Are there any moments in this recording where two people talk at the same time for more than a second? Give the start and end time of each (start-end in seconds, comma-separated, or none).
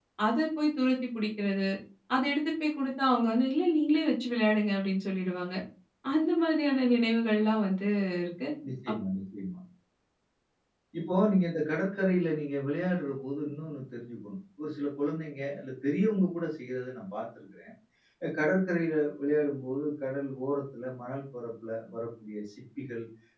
none